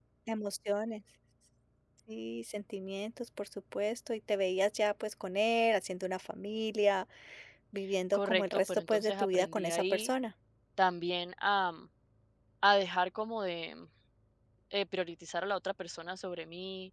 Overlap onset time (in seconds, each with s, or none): 8.1 s